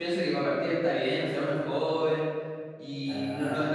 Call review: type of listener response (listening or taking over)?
listening